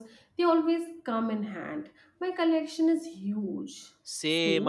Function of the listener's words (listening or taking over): taking over